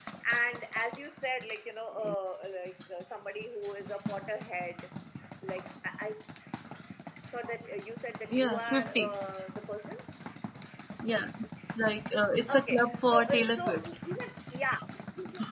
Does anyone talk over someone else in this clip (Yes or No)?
Yes